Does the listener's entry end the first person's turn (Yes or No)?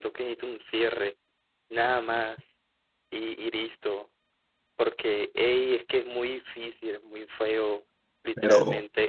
No